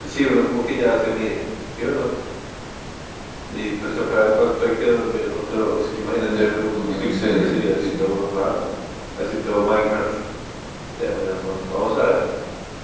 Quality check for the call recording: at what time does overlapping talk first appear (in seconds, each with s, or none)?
6.2 s